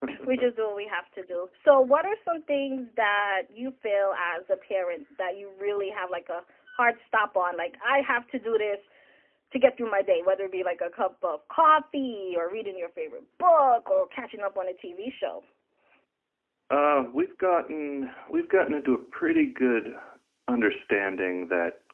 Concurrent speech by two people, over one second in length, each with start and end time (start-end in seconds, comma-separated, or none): none